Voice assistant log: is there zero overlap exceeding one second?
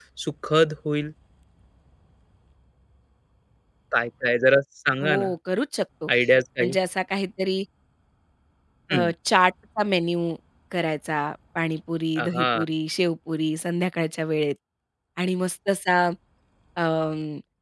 Yes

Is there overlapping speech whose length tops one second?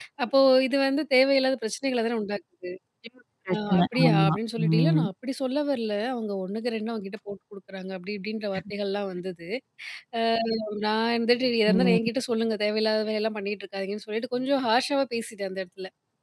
Yes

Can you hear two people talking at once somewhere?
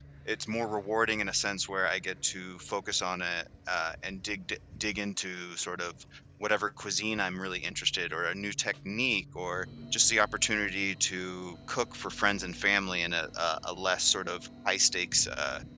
No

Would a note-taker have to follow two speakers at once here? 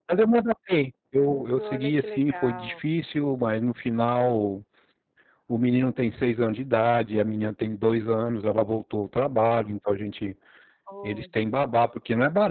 Yes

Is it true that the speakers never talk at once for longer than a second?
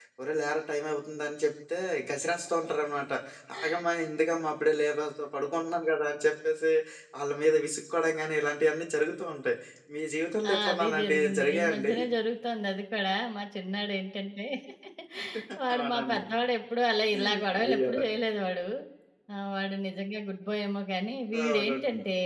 No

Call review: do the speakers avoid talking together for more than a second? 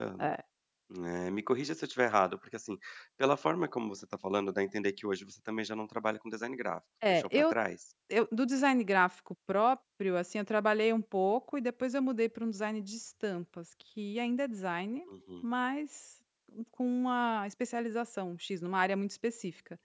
Yes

